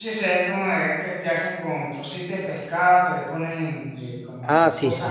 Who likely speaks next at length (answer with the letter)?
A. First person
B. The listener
B